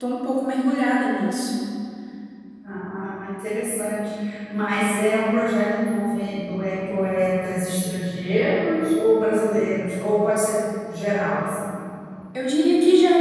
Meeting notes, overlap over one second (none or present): none